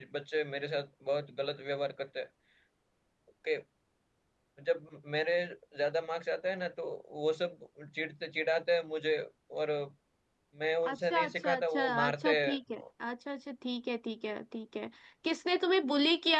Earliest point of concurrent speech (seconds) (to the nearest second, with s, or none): 11 s